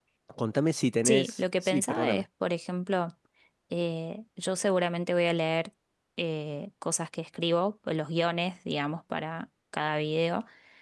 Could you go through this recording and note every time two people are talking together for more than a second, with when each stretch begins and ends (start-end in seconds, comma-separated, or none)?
1.0-2.2